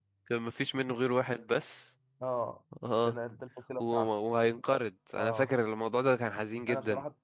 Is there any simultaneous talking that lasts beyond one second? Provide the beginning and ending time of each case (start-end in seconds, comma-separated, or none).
none